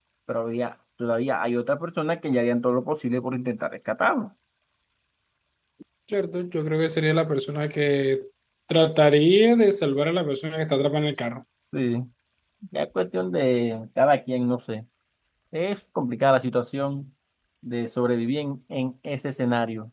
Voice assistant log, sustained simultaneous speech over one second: none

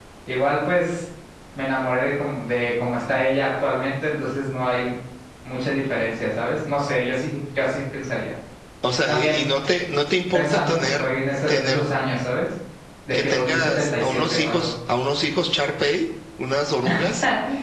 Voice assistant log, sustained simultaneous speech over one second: present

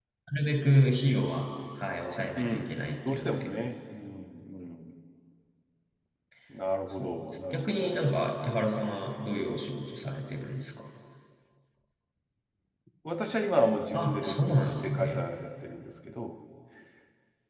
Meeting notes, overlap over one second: present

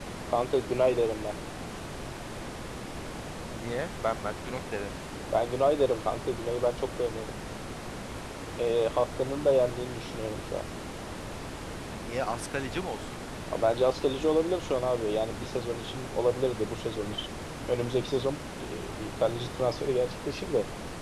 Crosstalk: none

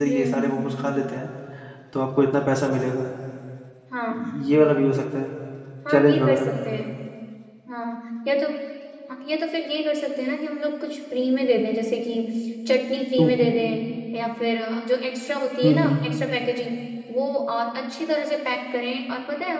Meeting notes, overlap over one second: none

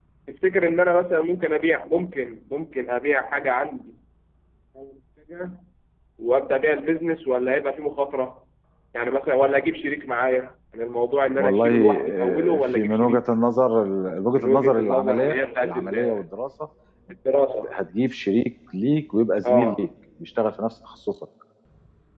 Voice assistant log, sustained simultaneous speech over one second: present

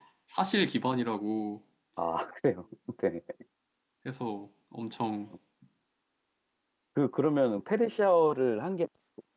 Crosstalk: none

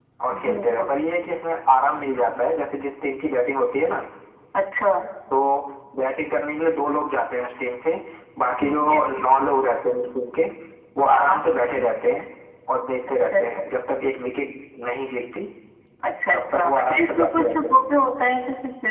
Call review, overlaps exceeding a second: present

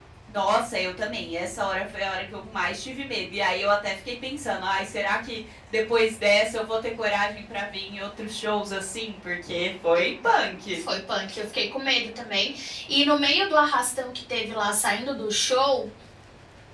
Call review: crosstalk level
none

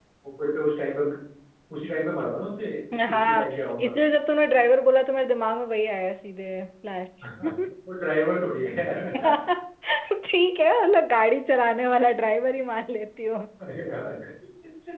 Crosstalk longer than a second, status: none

